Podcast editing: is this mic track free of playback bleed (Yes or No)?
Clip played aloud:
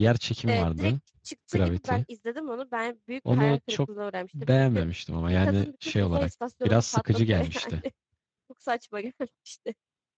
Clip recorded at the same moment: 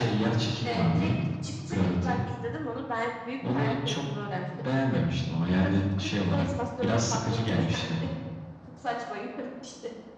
No